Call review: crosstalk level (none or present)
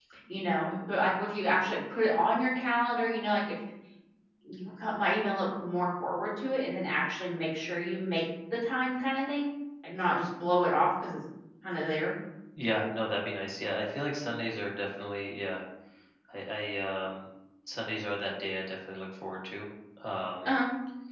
none